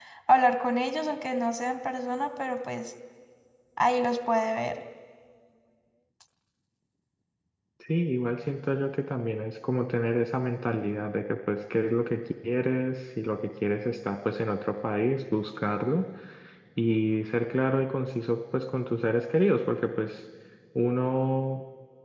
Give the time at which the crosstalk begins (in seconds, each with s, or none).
none